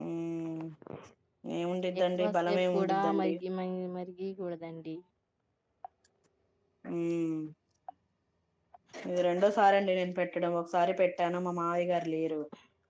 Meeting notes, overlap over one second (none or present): present